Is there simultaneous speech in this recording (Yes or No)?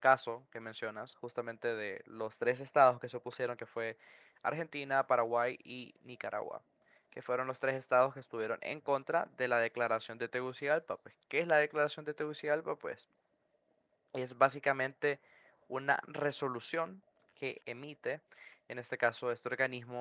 No